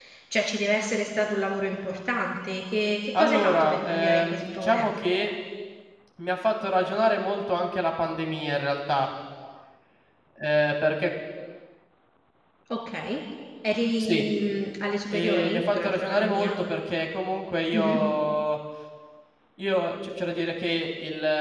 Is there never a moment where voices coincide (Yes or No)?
No